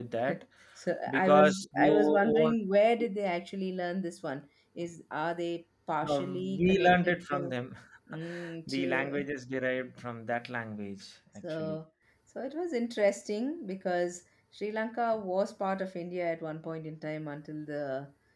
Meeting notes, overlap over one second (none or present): present